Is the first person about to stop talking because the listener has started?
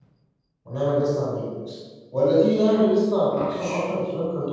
No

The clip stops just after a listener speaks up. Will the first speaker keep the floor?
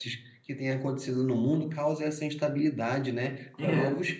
Yes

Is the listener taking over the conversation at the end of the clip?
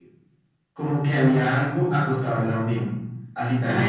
No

